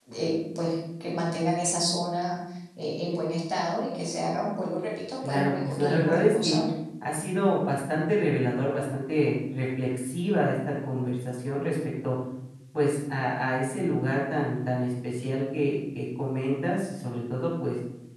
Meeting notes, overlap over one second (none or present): present